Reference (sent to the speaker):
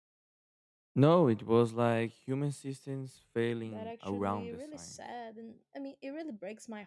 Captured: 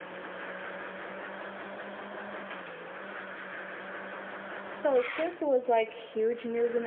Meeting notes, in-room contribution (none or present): present